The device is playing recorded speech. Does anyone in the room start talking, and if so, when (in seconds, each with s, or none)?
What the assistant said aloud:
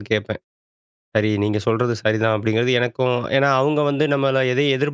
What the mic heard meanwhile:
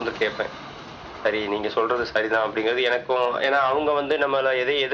none